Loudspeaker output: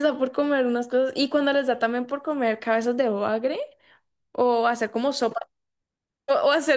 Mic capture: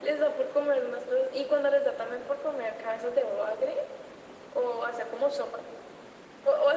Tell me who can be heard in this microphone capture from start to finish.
echo only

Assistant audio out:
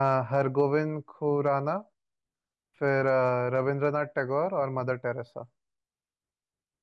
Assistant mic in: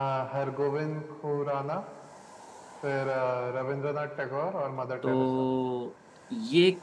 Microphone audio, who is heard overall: both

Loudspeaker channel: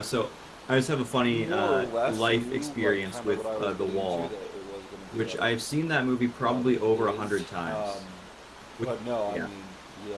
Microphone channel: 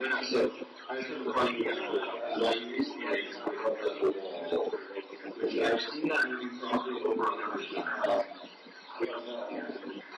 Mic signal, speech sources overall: echo only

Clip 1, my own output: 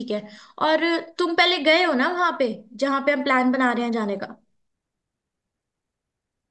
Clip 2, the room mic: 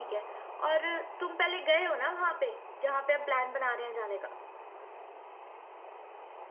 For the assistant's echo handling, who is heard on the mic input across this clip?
echo only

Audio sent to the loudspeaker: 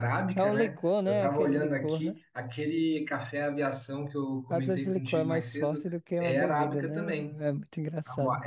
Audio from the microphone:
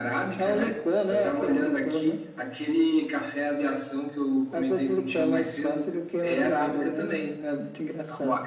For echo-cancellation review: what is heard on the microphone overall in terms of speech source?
echo only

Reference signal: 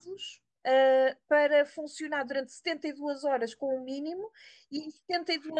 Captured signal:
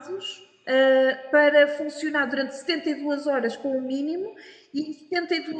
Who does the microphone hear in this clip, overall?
echo only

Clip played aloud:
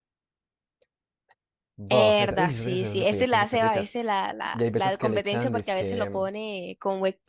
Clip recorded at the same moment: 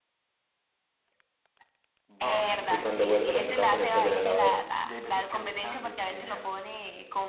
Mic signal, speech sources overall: both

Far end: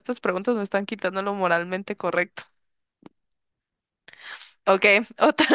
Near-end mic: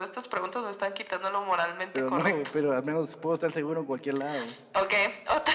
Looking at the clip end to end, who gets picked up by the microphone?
both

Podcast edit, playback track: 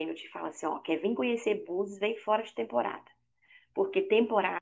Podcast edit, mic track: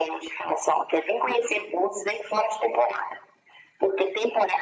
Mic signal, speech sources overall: echo only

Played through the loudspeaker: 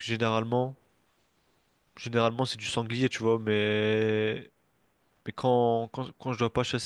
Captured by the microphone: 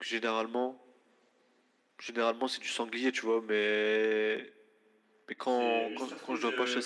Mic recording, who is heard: both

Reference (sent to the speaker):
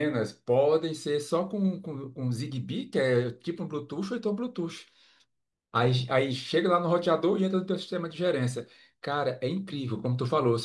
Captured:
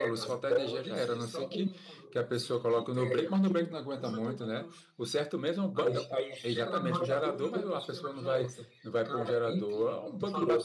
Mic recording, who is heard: both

